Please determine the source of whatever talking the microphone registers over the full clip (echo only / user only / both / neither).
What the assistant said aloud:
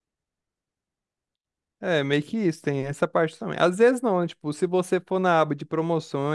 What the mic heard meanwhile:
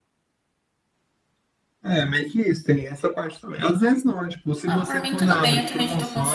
both